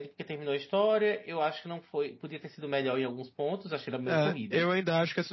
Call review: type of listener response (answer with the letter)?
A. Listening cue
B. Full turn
B